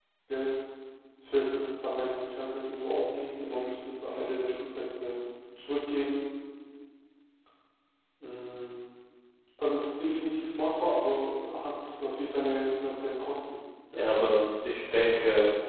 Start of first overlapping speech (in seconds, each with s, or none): none